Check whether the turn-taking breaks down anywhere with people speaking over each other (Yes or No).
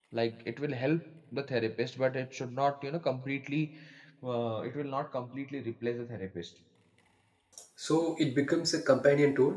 No